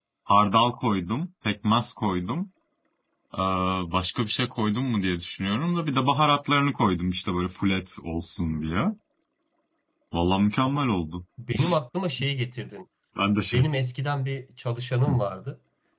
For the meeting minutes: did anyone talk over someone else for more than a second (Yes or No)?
No